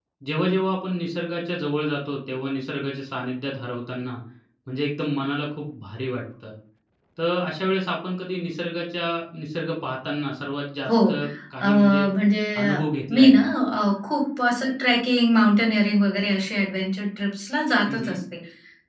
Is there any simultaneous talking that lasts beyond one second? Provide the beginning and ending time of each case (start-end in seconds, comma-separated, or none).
none